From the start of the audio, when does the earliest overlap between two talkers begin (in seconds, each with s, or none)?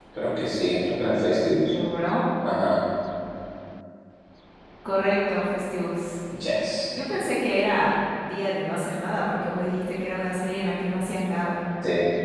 none